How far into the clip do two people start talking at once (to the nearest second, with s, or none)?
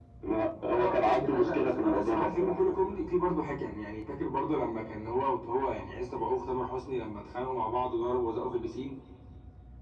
1 s